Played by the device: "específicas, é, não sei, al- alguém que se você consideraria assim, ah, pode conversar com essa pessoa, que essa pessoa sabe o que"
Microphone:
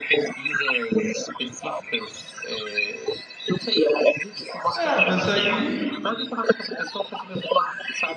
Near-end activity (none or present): present